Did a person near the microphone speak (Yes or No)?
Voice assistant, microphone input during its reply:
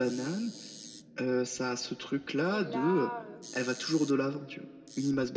Yes